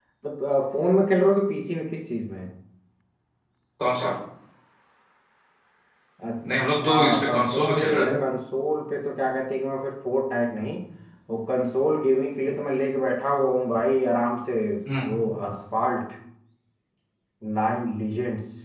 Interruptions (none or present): present